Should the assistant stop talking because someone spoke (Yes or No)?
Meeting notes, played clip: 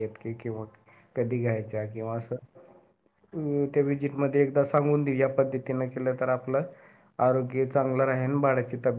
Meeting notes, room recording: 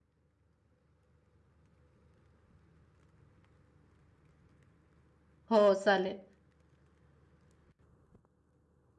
Yes